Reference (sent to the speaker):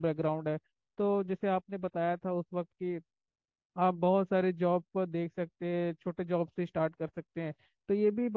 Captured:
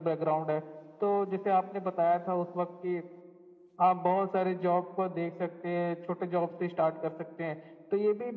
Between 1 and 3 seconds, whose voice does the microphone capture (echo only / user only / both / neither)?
echo only